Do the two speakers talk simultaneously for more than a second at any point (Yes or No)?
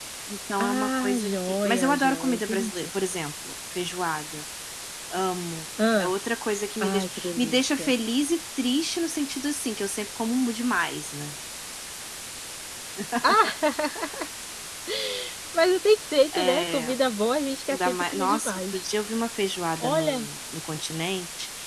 Yes